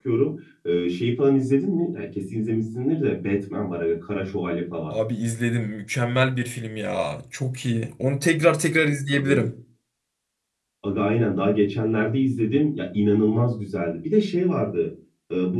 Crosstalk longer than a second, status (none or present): none